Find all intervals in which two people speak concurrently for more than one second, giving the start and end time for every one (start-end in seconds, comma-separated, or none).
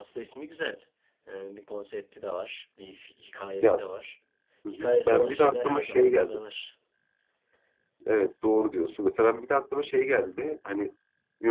4.7-6.4